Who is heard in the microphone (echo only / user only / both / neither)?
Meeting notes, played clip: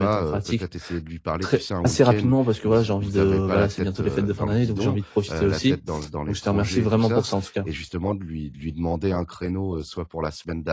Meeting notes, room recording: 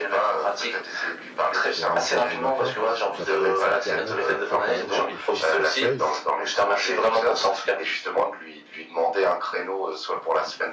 both